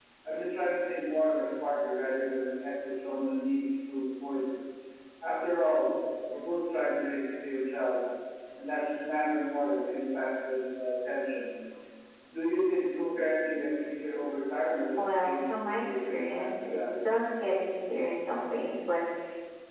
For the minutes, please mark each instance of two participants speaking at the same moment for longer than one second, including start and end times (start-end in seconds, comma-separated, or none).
15.0-17.1